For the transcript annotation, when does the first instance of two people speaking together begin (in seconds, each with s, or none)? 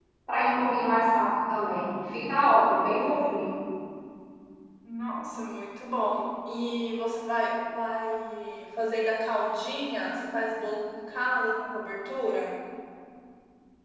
none